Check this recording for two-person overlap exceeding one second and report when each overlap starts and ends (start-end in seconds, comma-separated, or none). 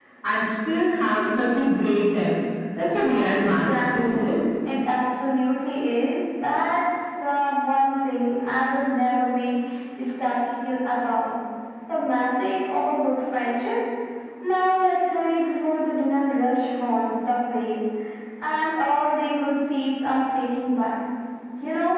3.0-4.4